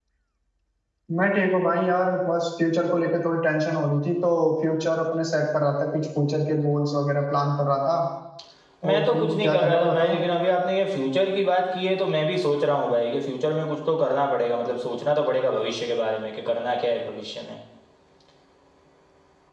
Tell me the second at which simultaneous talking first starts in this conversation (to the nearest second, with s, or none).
9 s